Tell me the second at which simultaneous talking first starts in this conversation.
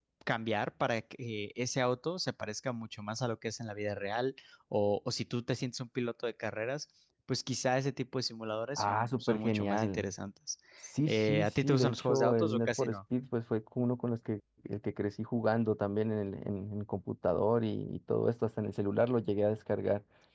8.8 s

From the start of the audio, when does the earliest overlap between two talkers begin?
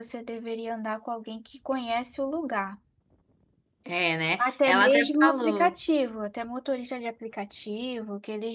4.4 s

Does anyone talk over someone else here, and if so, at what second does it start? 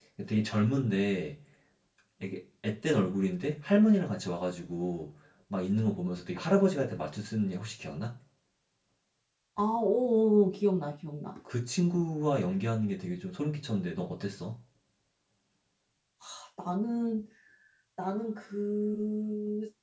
none

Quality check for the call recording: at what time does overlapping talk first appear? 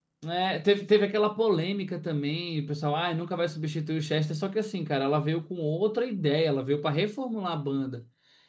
none

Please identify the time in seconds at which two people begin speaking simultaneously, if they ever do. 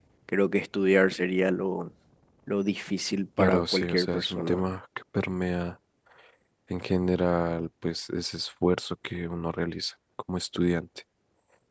3.4 s

